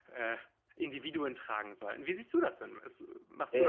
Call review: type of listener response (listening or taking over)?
taking over